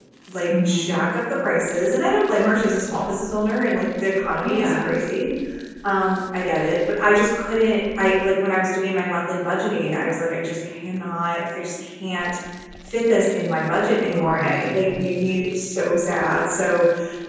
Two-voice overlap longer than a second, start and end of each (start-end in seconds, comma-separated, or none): 14.1-15.4